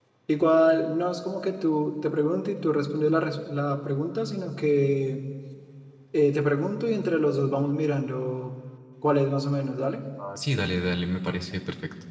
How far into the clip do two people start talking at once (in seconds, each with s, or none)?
none